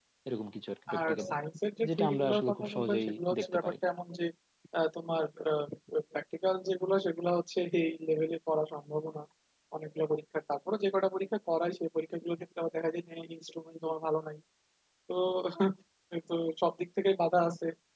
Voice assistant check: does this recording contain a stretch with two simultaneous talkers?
Yes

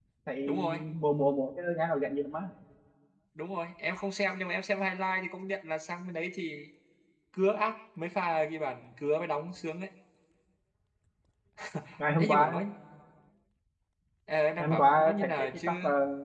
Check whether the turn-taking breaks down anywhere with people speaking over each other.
Yes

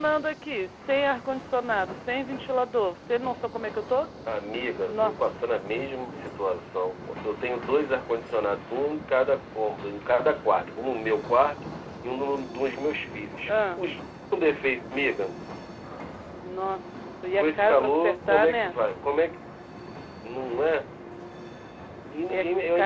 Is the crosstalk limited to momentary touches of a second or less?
No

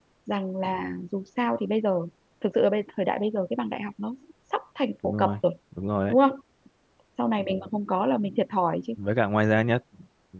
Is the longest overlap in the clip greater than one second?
No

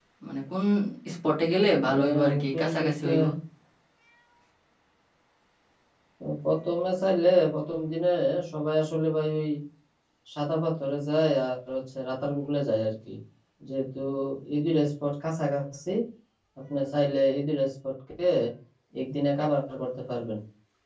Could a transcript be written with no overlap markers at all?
No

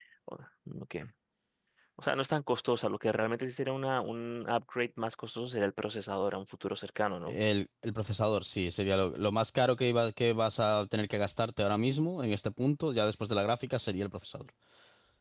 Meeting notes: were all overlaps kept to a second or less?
Yes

